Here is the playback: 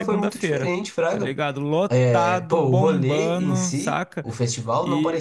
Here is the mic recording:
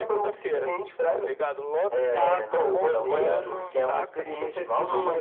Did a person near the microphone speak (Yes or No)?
Yes